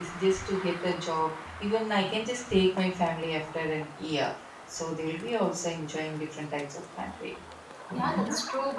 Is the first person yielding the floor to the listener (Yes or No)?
Yes